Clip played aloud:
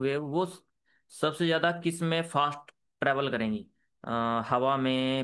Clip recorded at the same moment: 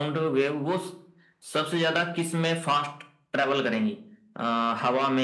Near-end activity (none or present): none